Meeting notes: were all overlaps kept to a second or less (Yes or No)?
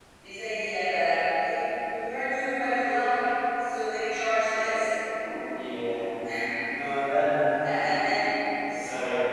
Yes